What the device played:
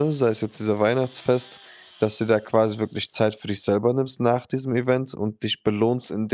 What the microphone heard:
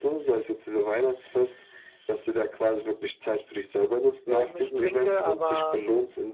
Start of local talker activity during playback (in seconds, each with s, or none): 4.3 s